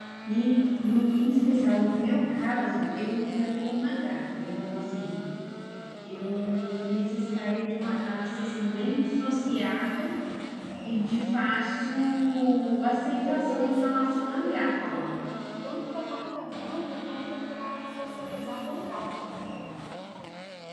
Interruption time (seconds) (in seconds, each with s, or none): 13.2 s